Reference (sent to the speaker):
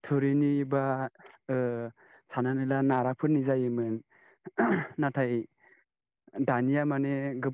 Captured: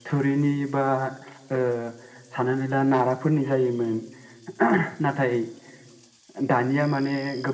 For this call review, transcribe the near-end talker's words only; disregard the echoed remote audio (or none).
none